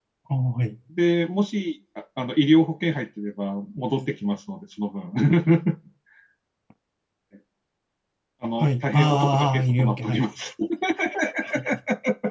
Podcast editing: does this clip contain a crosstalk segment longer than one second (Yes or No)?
Yes